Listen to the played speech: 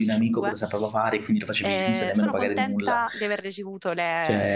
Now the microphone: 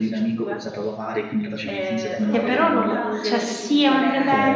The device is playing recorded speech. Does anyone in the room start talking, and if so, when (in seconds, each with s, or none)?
2.3 s